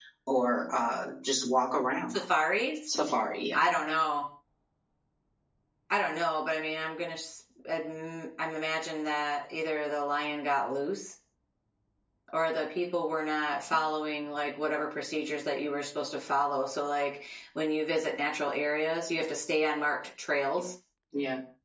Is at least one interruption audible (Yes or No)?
No